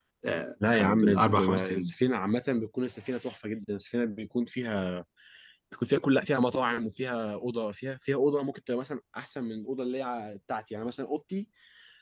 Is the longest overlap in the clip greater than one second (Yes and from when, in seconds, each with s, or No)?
Yes, from 0.7 s